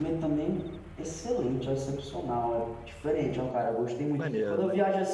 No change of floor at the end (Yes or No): Yes